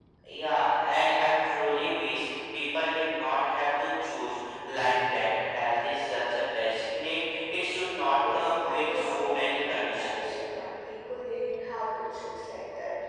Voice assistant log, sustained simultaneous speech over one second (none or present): present